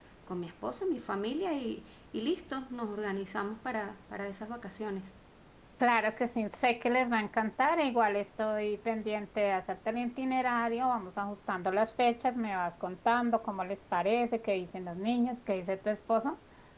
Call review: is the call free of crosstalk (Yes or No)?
Yes